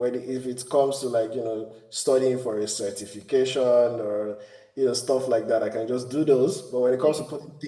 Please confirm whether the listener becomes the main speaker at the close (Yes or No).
No